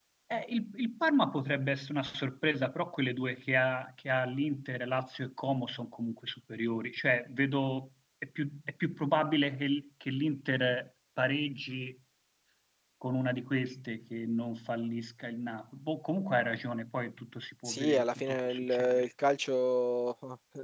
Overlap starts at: 18 s

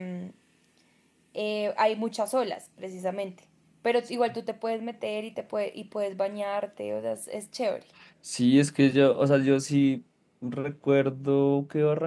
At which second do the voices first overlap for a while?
none

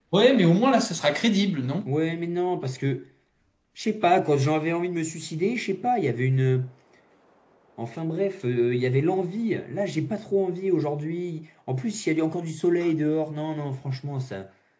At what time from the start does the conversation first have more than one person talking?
none

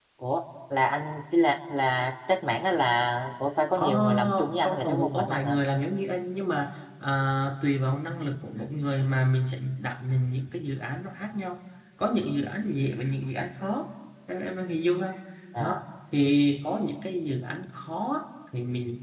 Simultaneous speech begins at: 4 s

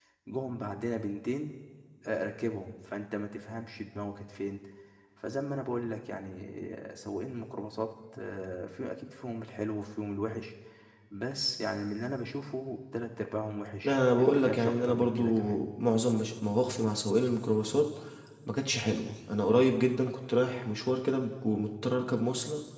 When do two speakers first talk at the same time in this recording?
14 s

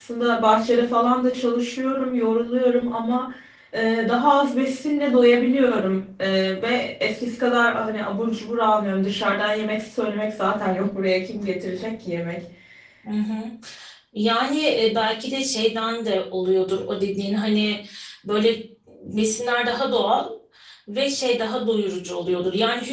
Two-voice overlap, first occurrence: none

